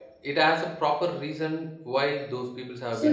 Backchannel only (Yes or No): No